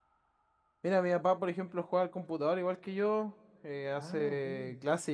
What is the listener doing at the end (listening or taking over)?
listening